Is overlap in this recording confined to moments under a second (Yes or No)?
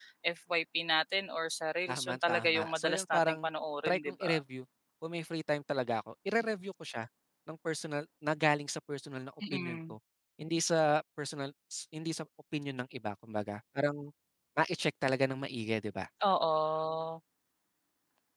No